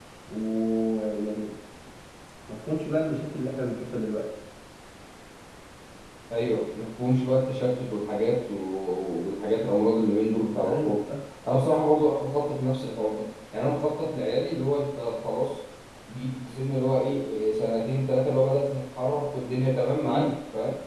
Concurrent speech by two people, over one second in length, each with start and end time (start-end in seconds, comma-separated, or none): none